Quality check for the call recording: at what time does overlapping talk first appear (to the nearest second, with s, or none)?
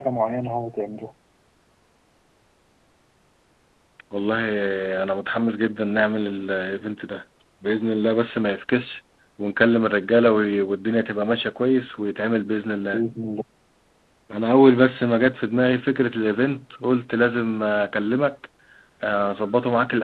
none